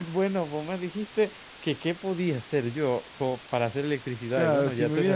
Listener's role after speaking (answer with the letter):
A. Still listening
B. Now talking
B